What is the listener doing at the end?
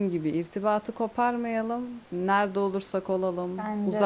listening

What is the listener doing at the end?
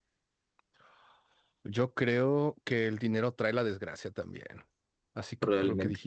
listening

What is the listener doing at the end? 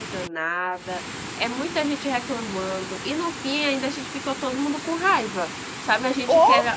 listening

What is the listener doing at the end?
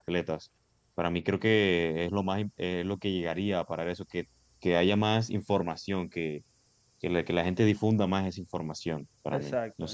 taking over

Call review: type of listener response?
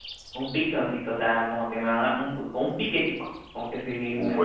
taking over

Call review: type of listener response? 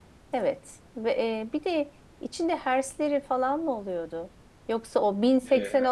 listening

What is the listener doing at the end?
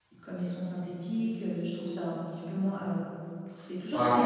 listening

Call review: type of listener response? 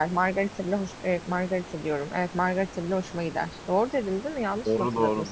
taking over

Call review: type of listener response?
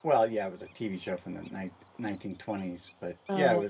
listening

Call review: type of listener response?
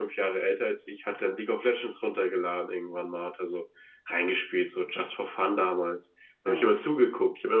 listening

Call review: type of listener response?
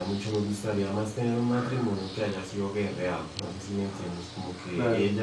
listening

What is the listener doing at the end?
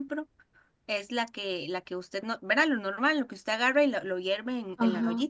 taking over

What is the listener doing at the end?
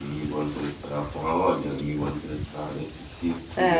taking over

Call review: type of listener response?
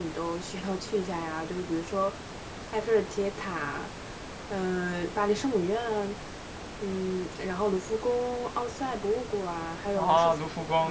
taking over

